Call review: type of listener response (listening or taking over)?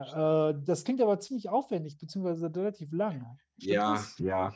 taking over